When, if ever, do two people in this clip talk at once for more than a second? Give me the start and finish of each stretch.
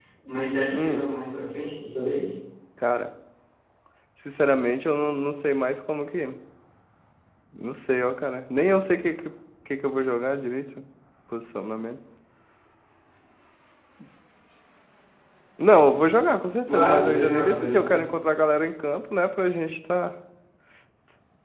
16.8-18.0

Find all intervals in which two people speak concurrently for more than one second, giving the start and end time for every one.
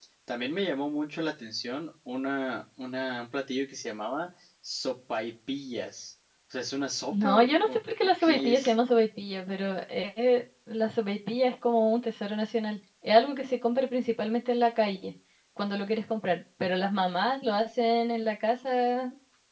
7.1-8.7

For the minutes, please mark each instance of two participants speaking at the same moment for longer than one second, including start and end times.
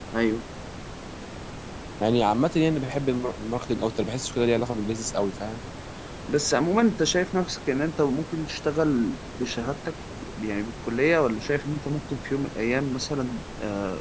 none

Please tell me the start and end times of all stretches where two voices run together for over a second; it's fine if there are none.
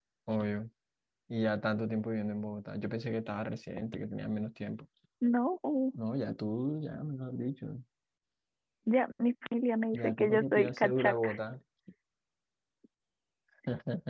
9.9-11.3

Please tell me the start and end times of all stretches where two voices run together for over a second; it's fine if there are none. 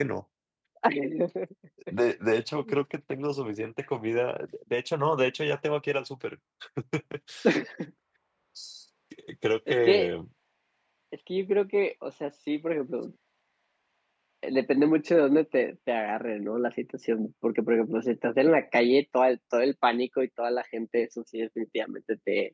none

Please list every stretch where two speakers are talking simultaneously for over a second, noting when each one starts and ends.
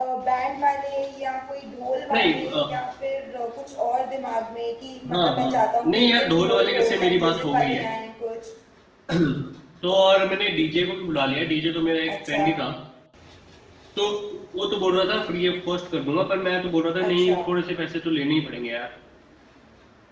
5.1-7.8

